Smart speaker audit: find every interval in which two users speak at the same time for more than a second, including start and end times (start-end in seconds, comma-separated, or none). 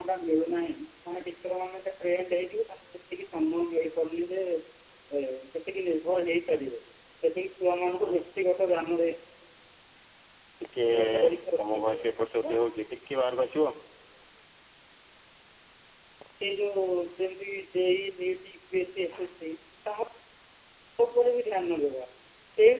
none